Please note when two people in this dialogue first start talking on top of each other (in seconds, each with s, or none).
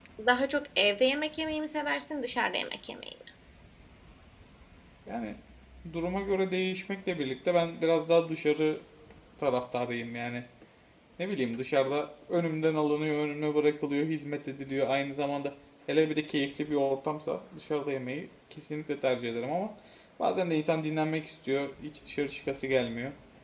none